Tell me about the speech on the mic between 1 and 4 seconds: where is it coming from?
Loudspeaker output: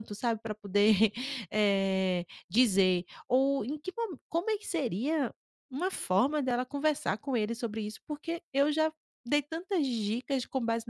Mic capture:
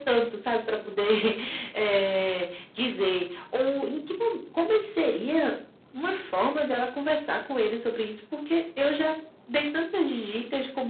echo only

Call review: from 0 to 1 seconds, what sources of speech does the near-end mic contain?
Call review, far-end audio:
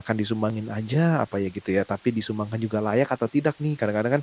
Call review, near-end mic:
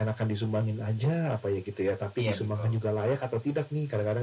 echo only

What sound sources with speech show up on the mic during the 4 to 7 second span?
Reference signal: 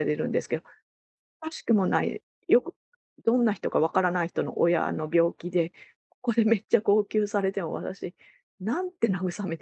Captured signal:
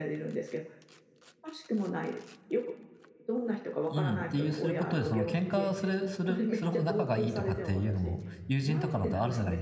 both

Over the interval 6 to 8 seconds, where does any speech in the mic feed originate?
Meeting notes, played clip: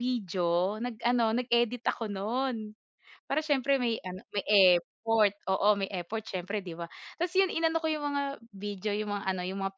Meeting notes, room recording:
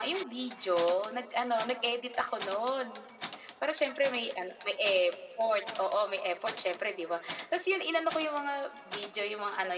echo only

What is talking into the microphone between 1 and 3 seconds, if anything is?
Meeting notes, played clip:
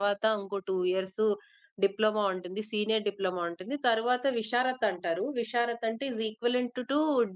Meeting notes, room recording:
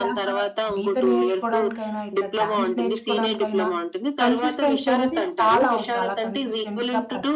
both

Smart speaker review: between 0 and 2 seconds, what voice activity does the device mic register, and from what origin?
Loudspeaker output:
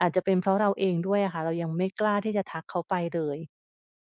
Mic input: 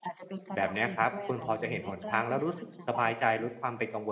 both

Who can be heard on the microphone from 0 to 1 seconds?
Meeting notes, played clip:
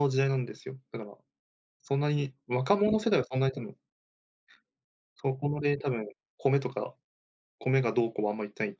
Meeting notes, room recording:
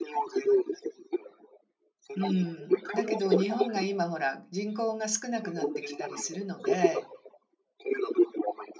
echo only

